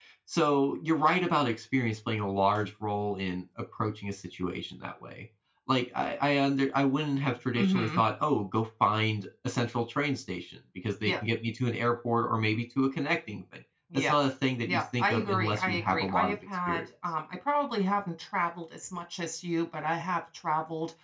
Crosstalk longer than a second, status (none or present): present